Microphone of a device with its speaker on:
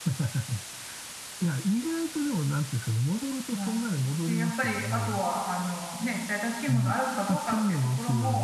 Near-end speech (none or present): present